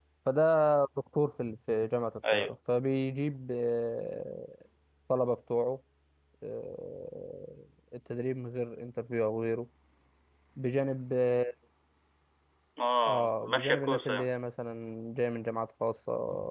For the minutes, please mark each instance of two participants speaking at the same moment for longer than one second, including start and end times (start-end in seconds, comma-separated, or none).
13.0-14.3